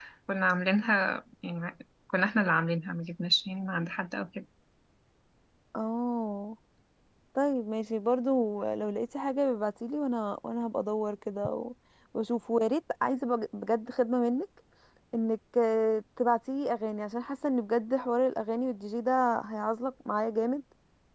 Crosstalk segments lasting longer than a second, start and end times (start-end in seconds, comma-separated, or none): none